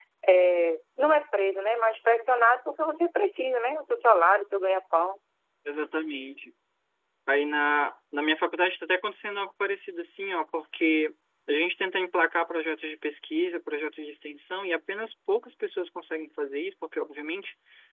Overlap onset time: none

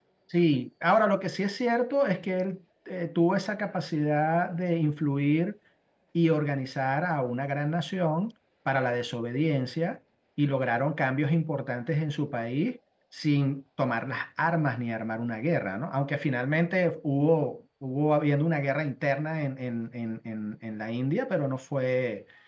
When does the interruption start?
none

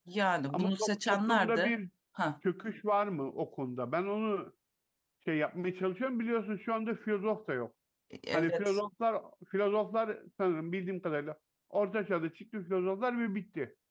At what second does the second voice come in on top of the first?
0.5 s

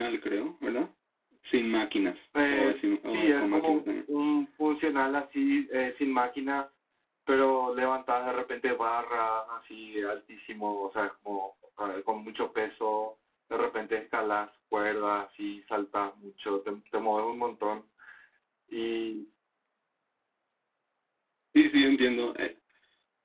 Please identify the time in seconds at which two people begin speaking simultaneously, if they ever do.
2.3 s

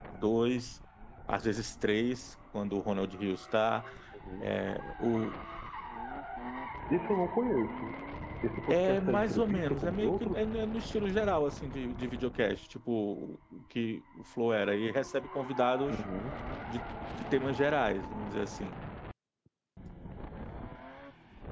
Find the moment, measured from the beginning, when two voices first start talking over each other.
8.7 s

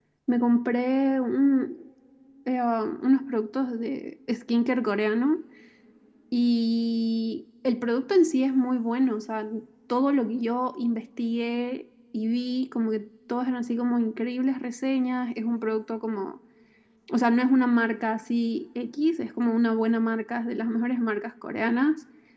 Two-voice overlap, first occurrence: none

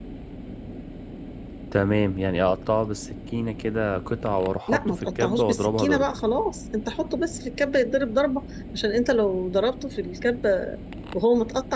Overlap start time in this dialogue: 4.7 s

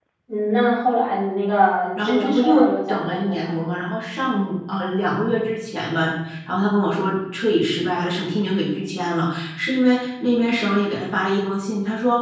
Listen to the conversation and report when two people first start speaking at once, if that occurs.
1.9 s

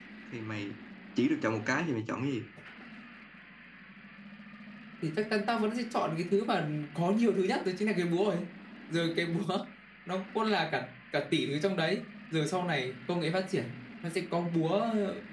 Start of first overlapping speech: none

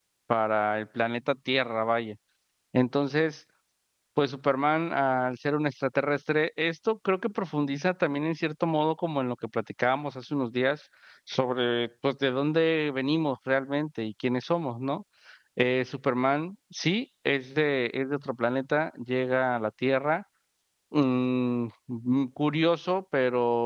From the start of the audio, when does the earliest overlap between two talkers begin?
none

